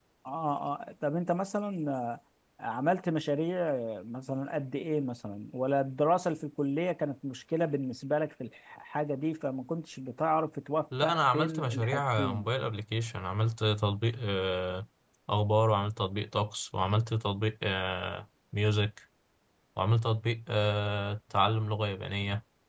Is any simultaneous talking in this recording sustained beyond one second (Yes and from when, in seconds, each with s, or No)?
Yes, from 10.9 s